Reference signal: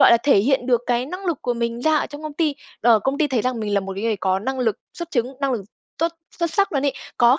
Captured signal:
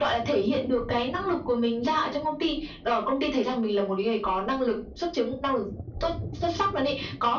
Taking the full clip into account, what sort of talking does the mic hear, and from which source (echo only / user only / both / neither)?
echo only